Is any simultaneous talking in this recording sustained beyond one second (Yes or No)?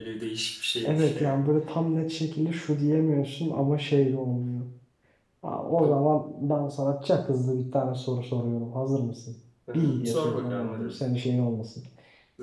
Yes